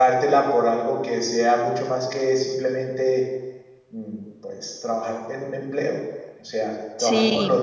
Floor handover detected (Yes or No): Yes